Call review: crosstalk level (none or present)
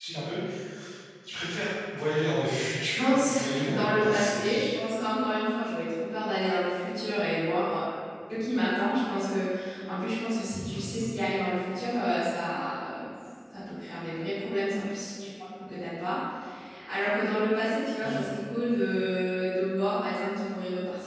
present